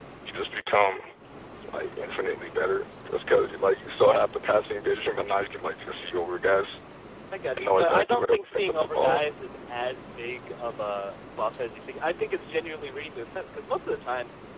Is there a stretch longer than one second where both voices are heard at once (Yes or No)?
Yes